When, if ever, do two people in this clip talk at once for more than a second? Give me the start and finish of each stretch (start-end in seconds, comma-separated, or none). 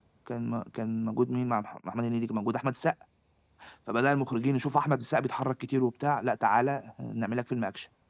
none